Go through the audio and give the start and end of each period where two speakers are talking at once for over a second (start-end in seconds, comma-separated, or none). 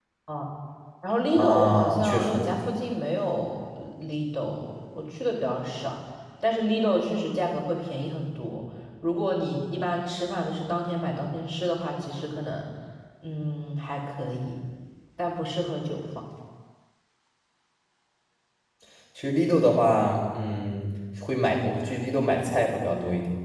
1.3-2.5